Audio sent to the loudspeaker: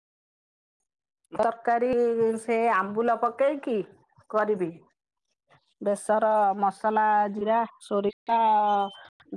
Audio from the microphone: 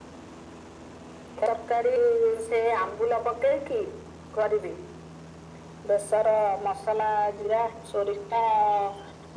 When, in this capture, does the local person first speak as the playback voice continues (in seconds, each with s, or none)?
none